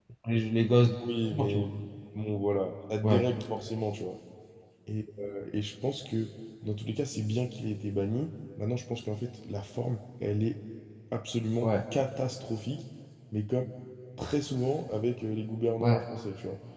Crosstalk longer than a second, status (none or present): none